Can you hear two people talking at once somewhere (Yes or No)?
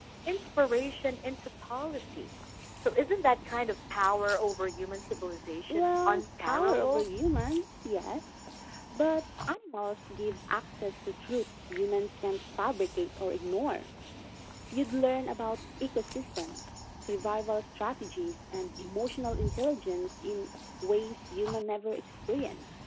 Yes